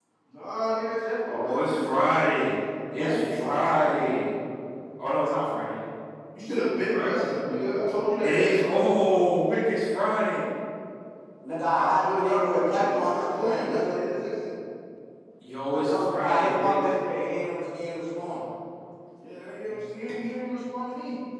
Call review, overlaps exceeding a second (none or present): present